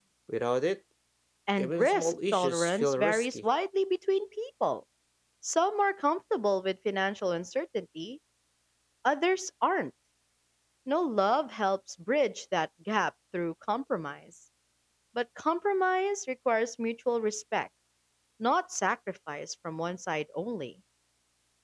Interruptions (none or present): present